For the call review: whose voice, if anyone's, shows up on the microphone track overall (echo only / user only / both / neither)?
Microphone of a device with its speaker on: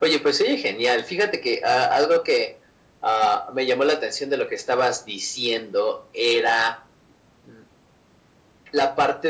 echo only